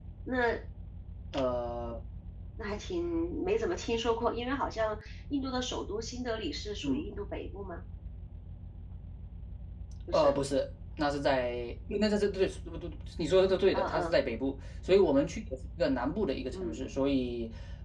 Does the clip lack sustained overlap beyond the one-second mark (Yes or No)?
Yes